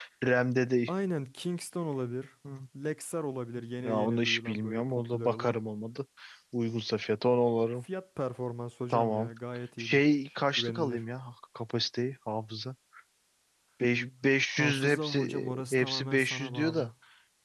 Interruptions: present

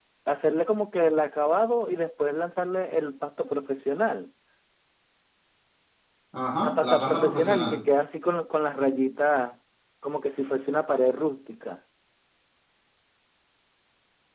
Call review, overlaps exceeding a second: present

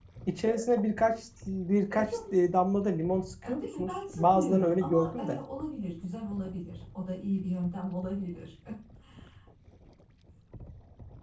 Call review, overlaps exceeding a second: present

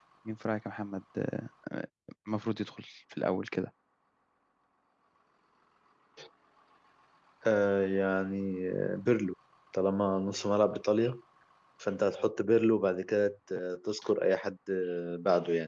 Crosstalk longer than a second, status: none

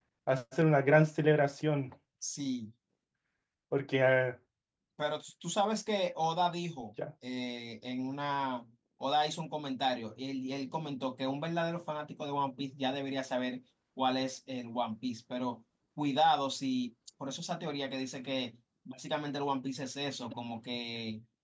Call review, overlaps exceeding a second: none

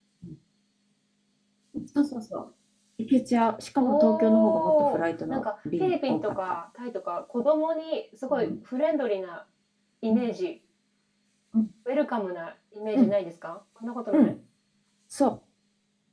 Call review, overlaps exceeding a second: present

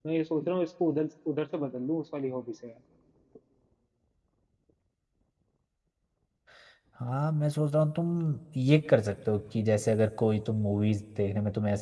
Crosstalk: none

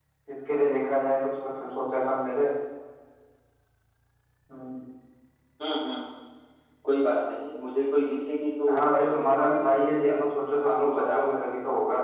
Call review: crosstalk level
present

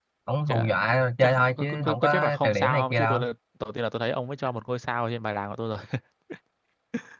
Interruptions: present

